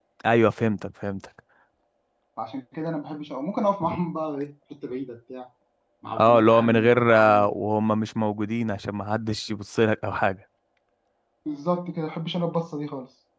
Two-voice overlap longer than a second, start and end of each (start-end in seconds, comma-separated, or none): 6.2-7.5